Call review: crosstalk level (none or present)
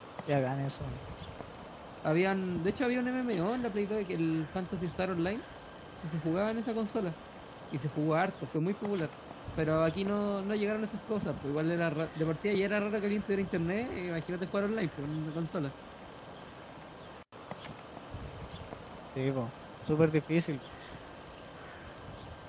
none